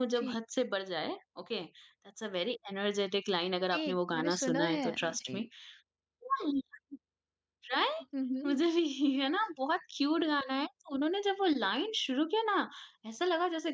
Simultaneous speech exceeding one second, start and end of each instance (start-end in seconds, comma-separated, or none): 3.7-5.4